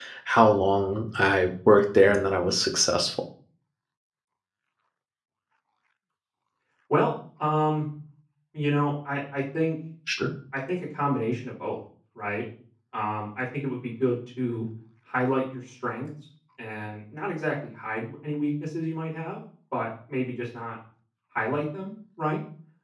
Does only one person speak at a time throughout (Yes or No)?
Yes